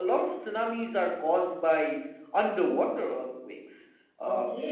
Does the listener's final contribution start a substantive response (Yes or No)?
Yes